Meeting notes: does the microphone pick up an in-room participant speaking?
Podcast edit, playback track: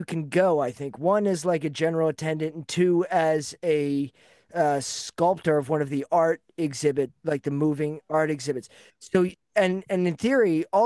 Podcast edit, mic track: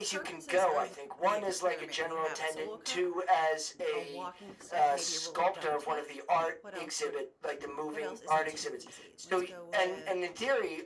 Yes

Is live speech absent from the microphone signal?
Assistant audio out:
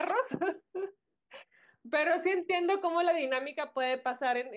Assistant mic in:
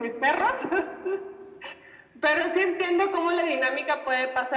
Yes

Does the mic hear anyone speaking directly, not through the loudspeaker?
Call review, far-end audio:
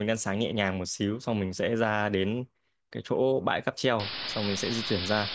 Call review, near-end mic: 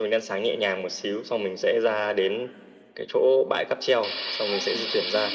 Yes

